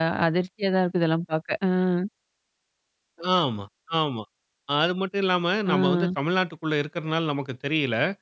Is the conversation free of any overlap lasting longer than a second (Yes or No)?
Yes